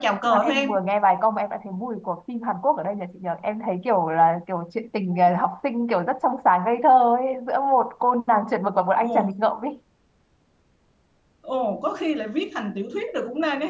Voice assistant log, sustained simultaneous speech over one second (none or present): none